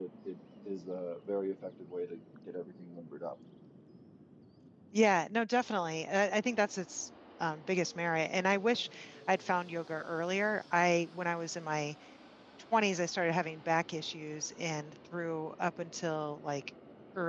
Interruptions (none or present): none